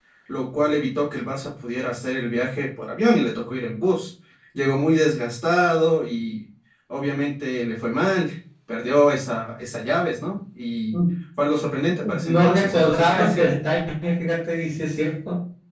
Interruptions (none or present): present